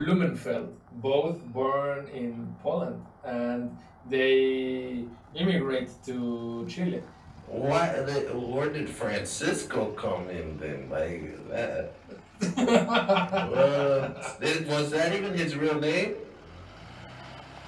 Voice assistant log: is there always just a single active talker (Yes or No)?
Yes